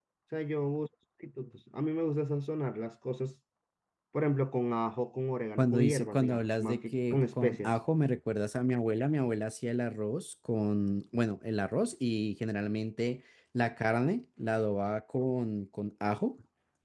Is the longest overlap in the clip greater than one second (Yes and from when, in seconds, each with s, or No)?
Yes, from 5.6 s